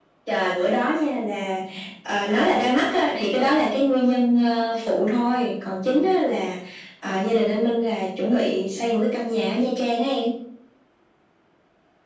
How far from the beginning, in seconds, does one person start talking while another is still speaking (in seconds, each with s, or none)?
none